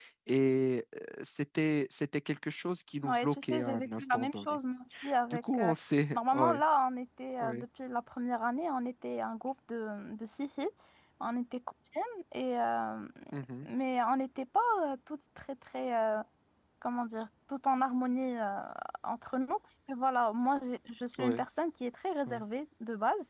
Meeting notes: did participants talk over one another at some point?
Yes, from 3.0 s

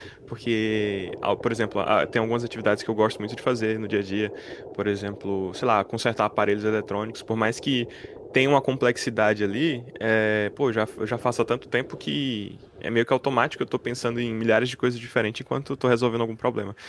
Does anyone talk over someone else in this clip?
No

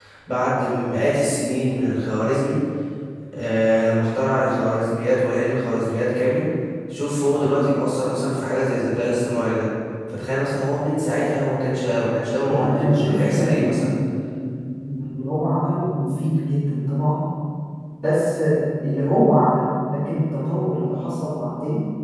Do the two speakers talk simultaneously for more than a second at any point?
Yes, from 12.4 s

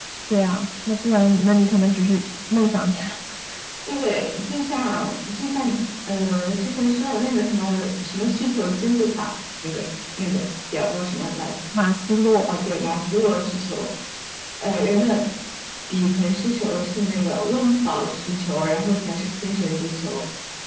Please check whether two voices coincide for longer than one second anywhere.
No

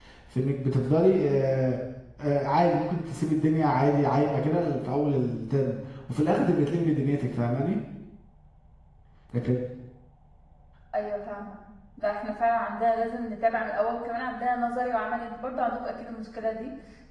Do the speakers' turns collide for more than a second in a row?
No

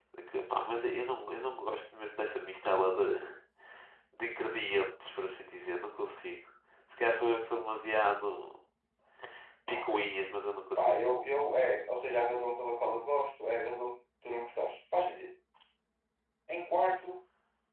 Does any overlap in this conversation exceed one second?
No

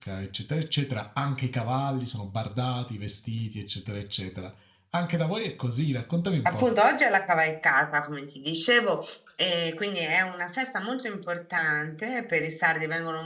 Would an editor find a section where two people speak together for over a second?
No

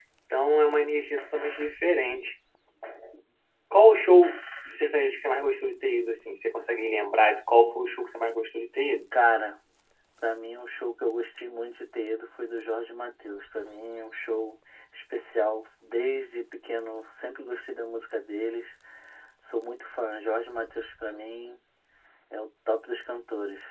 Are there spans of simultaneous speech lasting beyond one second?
No

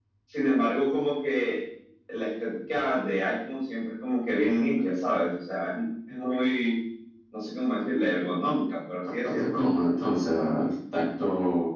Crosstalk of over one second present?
No

